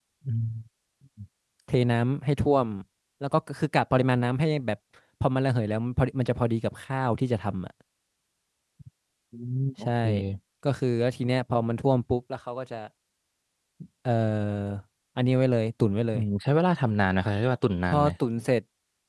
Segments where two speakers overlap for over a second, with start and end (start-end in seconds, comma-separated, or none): none